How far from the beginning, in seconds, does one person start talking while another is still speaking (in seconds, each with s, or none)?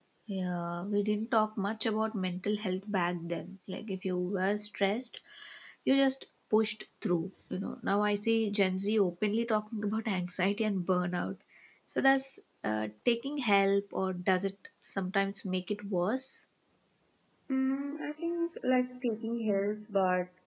none